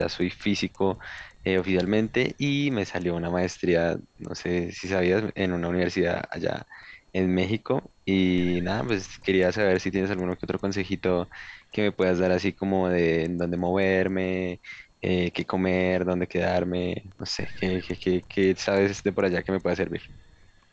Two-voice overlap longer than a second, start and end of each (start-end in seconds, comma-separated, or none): none